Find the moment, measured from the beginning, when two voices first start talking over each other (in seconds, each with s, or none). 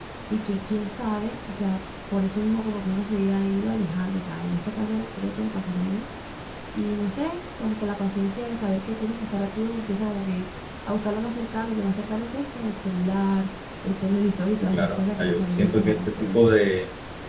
14.6 s